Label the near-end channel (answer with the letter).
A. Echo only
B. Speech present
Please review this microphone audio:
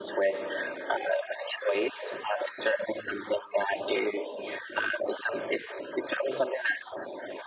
A